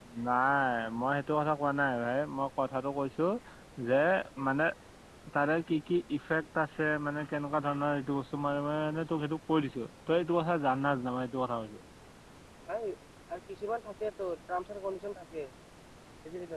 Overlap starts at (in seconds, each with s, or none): none